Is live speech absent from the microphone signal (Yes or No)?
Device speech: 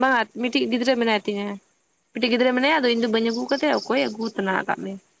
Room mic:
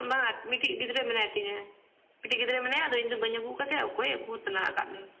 Yes